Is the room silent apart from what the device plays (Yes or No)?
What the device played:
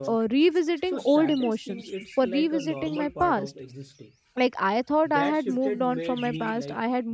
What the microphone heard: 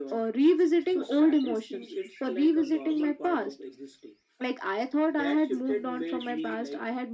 Yes